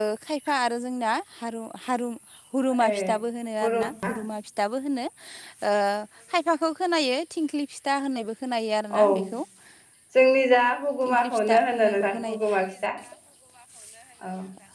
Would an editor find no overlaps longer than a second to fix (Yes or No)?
No